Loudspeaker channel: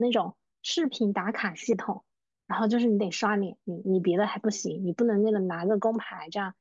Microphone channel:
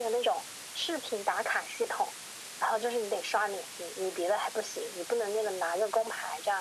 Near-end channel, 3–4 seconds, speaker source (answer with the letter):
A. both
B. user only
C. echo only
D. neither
C